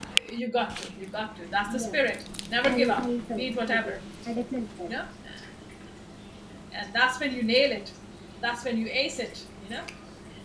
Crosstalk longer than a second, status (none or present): present